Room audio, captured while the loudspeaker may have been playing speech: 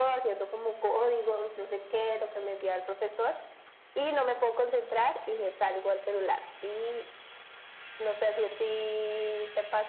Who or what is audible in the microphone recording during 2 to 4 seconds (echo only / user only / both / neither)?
echo only